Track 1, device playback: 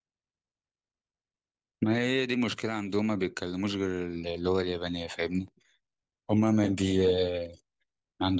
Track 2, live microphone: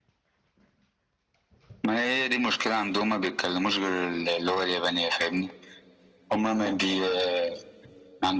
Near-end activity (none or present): none